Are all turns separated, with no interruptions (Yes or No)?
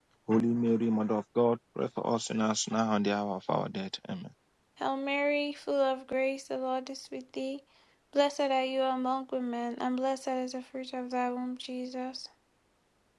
Yes